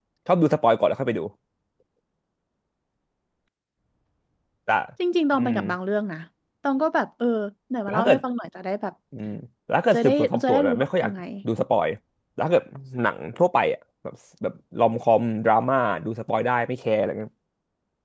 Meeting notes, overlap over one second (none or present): present